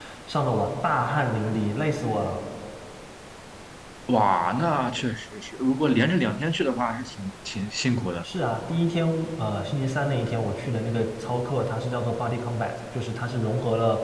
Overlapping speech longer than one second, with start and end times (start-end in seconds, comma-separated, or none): none